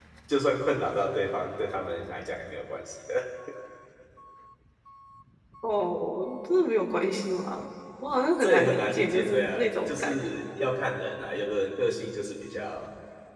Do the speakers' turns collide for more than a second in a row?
Yes, from 8.4 s

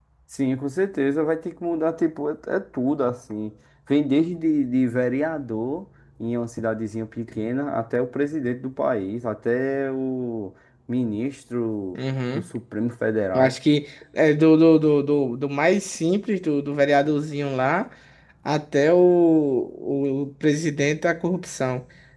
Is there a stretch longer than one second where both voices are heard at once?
No

